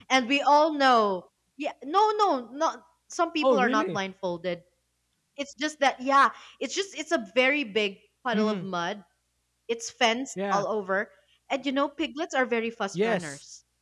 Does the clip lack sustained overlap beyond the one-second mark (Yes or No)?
Yes